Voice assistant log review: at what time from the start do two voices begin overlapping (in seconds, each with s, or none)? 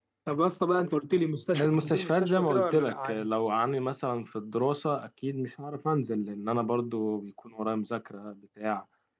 1.5 s